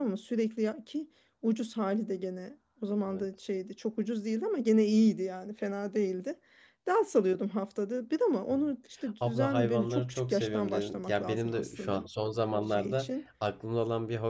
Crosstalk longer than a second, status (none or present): present